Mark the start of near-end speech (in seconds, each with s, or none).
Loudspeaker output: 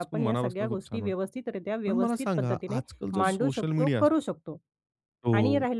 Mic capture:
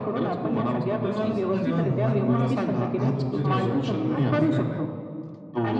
1.0 s